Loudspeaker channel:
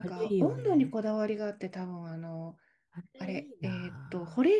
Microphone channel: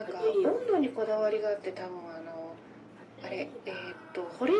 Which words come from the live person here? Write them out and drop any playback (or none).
none